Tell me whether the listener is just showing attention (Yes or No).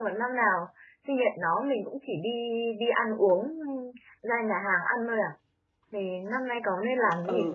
No